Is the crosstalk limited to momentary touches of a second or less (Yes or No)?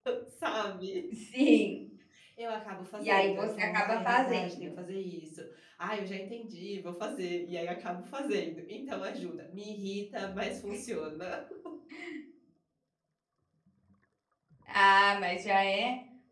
No